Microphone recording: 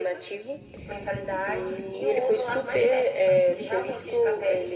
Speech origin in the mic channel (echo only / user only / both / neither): echo only